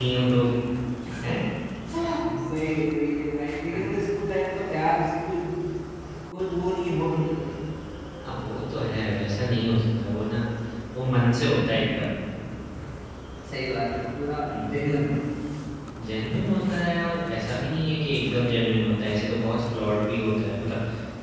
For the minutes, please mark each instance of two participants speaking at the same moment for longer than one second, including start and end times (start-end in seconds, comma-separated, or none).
none